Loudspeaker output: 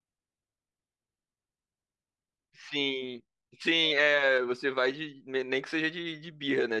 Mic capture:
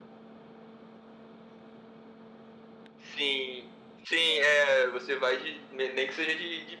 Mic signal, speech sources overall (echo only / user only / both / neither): echo only